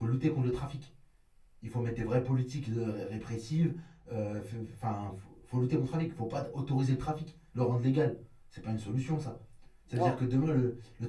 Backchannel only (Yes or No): Yes